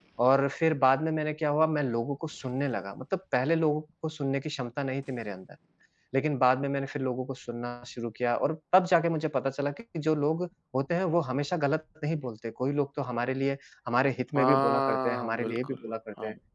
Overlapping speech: Yes, from 14.3 s

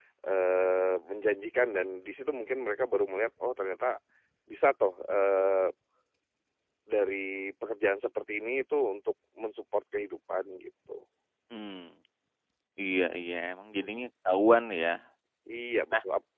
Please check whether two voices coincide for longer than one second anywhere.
No

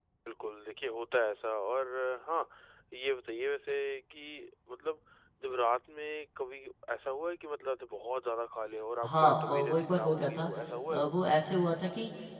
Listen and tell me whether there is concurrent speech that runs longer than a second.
Yes, from 9.0 s

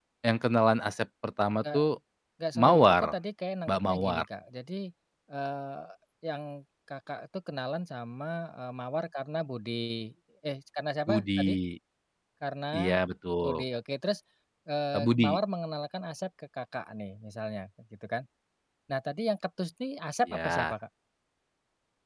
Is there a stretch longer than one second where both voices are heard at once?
No

